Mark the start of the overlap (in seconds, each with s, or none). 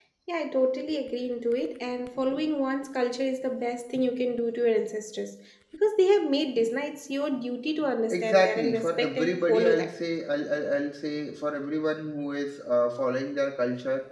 8.1 s